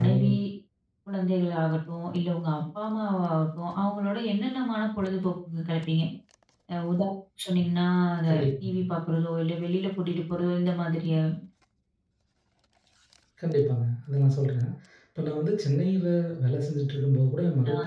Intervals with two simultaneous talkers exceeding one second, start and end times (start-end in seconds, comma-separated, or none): none